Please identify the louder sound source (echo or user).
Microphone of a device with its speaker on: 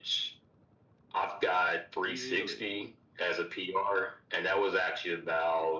echo